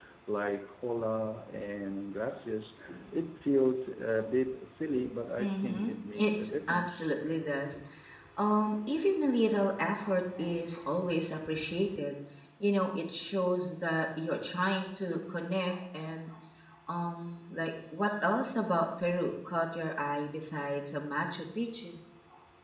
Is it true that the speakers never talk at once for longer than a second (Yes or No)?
No